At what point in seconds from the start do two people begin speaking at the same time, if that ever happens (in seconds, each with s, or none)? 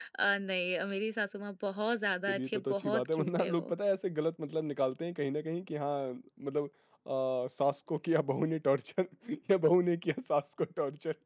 2.3 s